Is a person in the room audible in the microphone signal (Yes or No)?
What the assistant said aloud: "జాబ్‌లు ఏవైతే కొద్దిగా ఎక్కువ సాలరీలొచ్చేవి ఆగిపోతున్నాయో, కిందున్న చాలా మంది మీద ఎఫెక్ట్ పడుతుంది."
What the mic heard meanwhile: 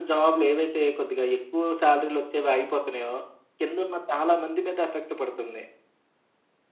No